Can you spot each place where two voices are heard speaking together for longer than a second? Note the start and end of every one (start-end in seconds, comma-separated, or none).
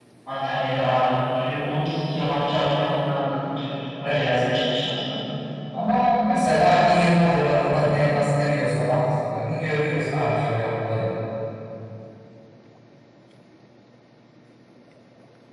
none